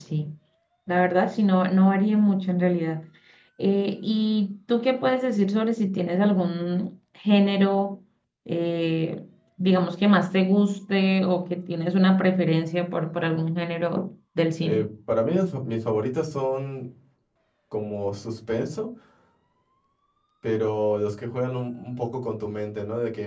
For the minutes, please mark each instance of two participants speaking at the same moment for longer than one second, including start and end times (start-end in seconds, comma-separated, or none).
none